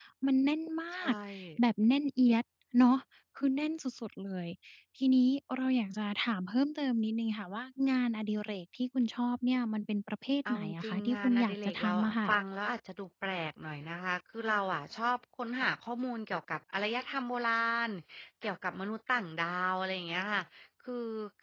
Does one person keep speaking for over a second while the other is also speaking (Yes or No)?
Yes